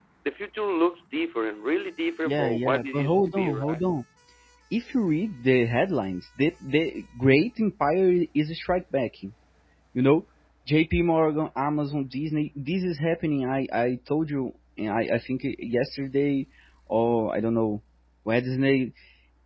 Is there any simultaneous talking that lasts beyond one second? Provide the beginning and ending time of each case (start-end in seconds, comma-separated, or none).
2.2-3.8